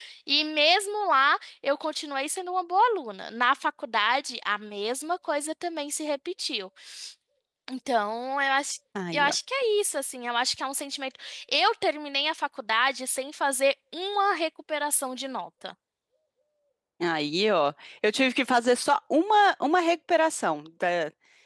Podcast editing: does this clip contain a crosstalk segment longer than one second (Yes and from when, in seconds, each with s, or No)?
No